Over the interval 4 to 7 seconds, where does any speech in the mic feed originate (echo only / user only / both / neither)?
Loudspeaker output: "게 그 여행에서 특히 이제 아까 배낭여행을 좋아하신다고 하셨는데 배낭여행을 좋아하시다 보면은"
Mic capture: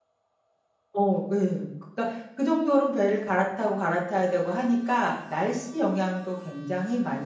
user only